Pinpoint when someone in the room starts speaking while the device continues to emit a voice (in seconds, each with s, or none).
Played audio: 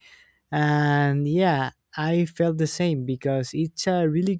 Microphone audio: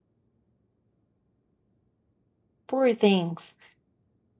2.7 s